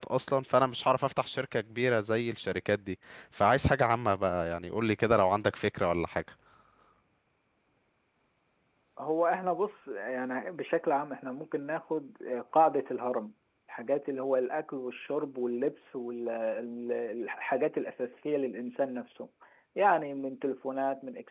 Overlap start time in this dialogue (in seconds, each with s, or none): none